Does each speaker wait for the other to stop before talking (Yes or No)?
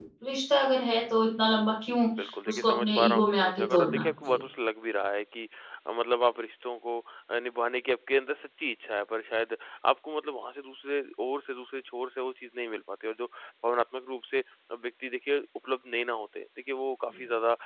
No